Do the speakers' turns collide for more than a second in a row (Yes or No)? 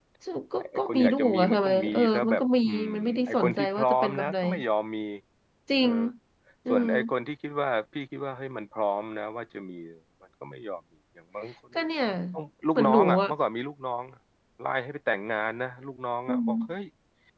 Yes